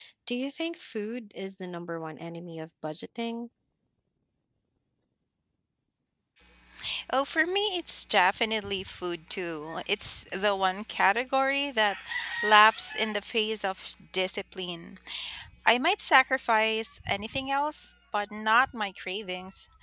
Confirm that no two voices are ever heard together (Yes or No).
Yes